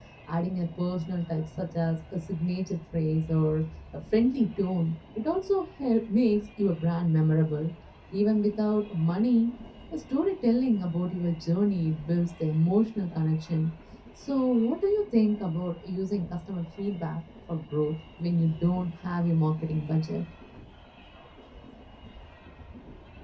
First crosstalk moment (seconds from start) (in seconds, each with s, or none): none